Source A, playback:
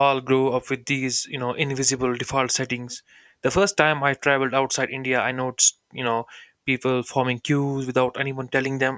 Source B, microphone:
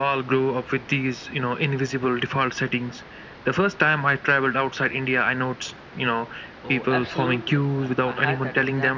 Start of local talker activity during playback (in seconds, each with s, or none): 6.6 s